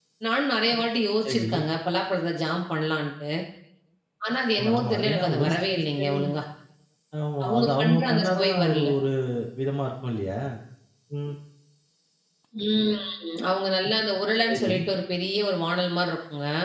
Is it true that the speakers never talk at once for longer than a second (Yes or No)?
No